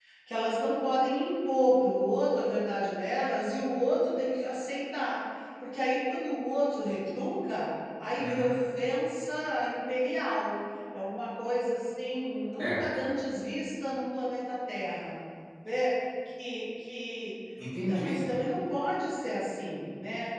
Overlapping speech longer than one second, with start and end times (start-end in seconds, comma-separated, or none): none